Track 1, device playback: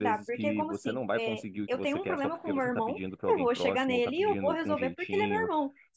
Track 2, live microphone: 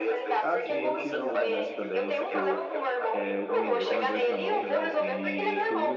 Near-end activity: present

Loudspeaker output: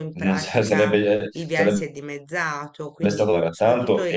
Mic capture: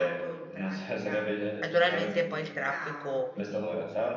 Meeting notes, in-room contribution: present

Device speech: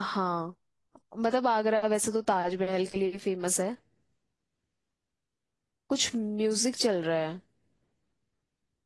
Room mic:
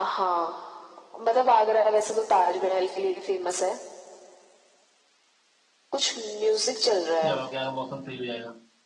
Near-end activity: present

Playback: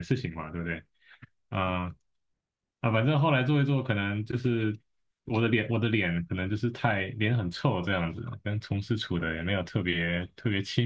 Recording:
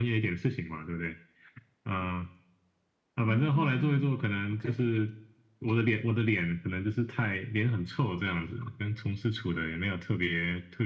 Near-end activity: present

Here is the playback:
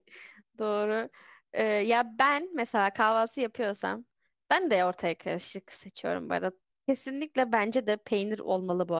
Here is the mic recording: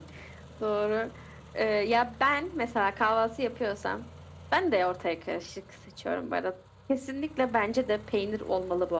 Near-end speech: none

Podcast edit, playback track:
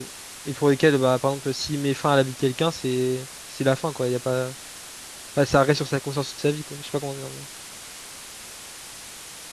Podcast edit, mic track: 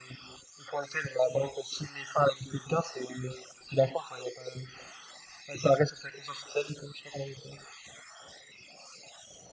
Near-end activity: none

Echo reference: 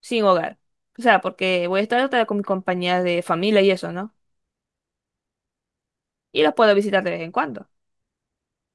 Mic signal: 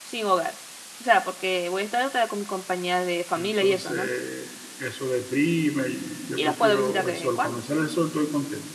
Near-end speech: present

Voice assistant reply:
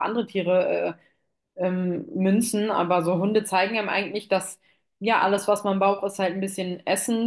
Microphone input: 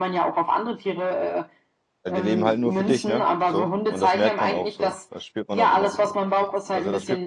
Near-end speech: present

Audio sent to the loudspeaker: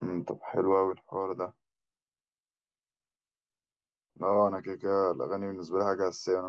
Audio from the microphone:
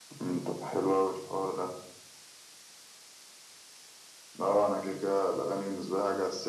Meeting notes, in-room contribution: none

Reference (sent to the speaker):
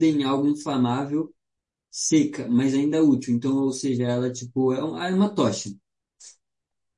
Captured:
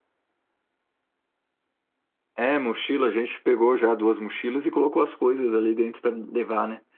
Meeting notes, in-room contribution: present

